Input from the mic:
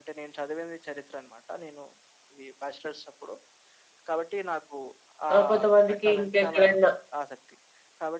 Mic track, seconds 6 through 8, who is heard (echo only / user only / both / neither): both